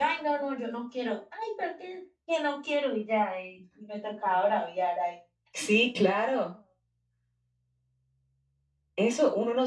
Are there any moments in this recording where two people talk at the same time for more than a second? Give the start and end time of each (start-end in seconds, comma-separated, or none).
none